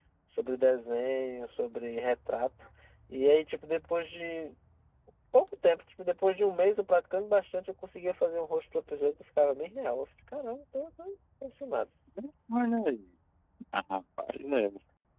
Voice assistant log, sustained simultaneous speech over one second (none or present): none